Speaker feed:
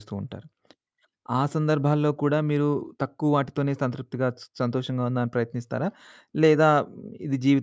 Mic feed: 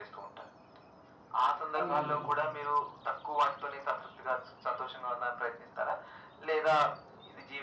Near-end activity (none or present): present